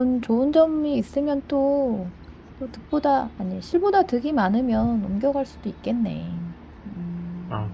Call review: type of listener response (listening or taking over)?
taking over